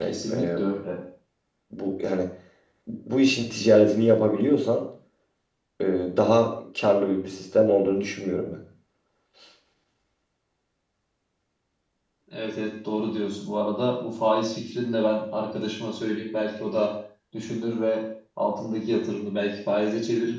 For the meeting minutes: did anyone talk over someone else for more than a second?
No

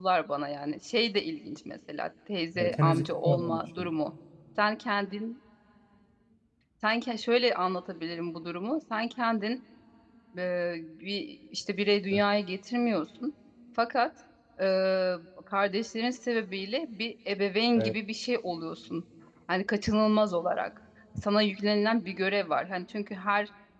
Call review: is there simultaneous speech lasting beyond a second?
Yes, from 2.6 s

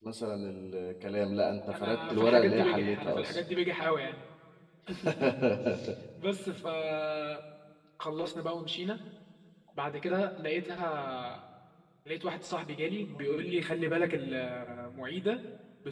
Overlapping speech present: Yes, from 1.7 s

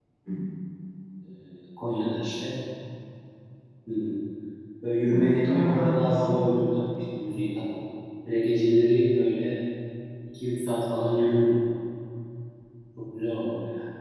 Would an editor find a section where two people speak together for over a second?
Yes, from 5.1 s

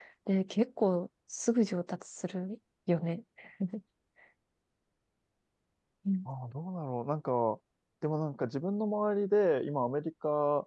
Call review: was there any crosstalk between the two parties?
No

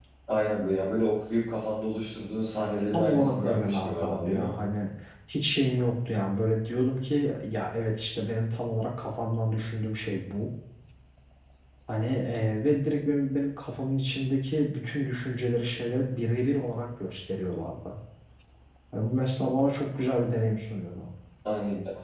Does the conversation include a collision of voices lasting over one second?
Yes, from 2.9 s

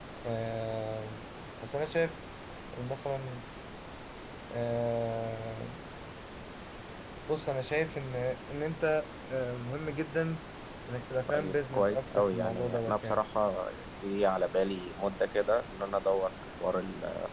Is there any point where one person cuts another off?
Yes, from 11.3 s

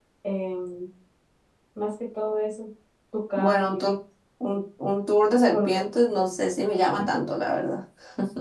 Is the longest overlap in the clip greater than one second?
No

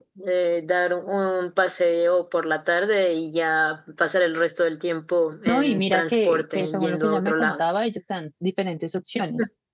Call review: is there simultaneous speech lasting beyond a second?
Yes, from 5.5 s

